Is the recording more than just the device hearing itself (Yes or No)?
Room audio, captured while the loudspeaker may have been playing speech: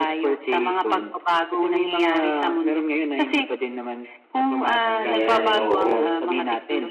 Yes